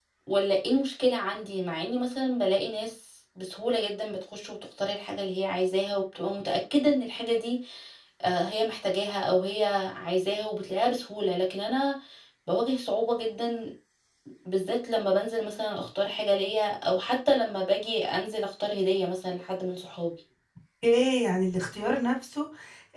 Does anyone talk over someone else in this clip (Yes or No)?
No